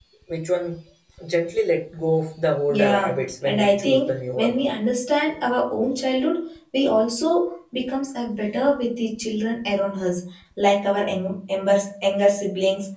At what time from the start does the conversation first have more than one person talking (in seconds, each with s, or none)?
2.7 s